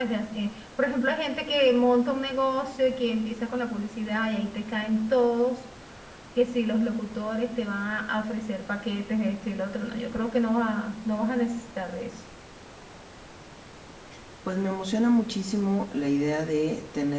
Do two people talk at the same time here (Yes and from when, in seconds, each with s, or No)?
No